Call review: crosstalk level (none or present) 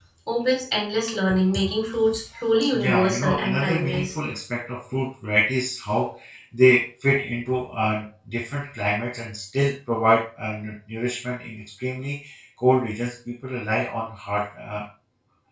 present